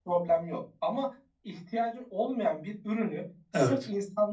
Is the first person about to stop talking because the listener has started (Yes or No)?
No